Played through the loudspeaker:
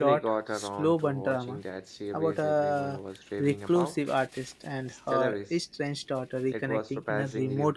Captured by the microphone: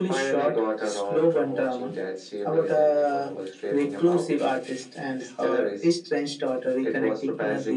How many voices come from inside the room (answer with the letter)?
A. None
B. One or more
A